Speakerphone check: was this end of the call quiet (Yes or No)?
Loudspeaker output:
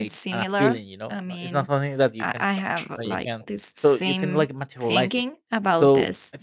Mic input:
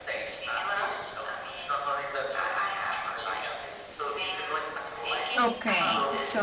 No